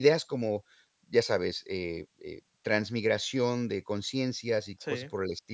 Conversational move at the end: listening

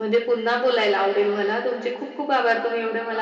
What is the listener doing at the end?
listening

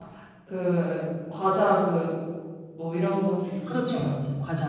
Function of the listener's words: taking over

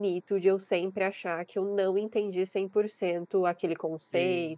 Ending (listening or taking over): listening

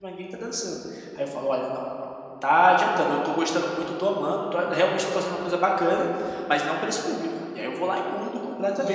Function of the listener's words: taking over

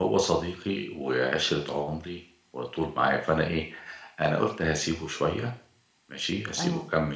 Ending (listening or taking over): listening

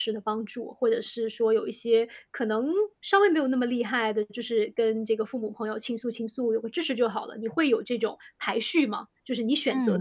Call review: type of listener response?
taking over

